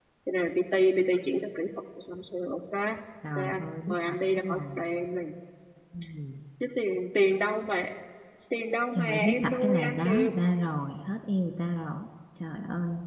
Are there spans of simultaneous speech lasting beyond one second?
Yes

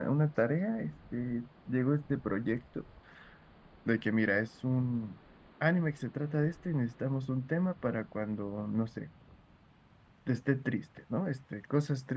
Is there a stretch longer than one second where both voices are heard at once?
No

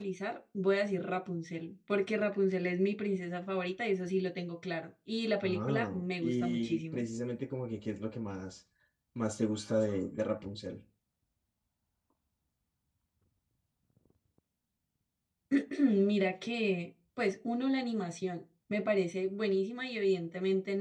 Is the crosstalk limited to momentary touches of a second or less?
No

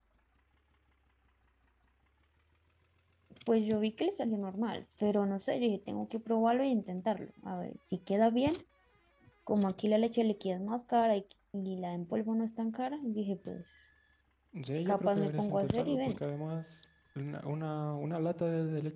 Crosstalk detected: Yes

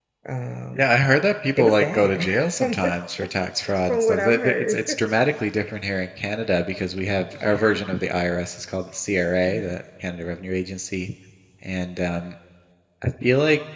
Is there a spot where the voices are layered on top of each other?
Yes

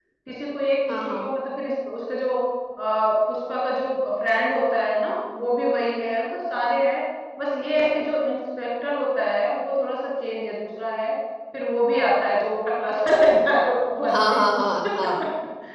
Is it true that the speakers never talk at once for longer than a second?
Yes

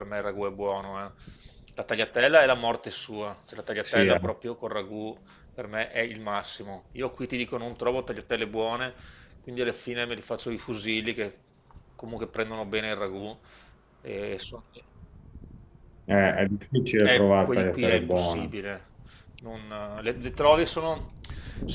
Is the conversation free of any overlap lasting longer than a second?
No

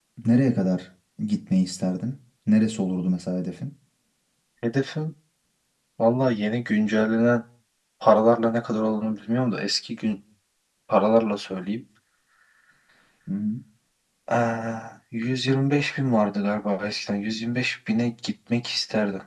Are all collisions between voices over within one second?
Yes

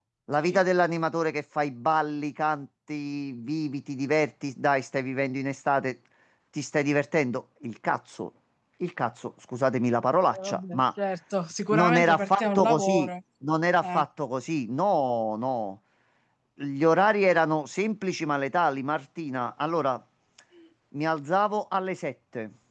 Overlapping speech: Yes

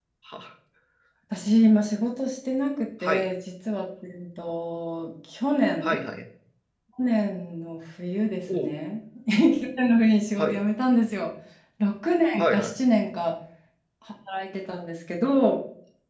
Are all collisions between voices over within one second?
Yes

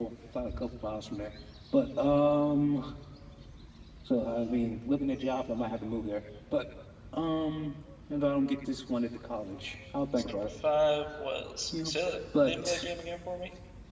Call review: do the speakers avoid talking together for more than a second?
Yes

